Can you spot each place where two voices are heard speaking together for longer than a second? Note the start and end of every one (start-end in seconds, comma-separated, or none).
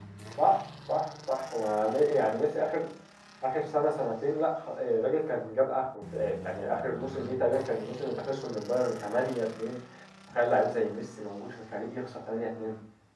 none